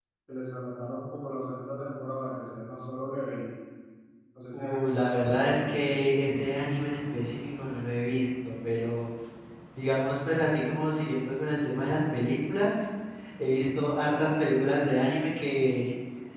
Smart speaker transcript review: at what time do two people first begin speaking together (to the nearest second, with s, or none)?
5 s